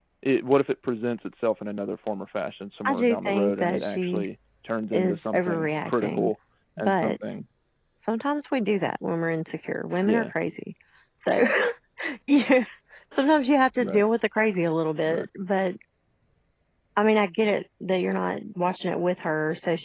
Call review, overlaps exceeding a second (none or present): present